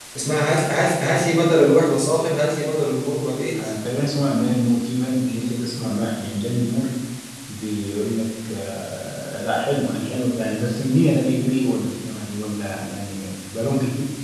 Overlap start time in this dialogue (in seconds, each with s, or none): none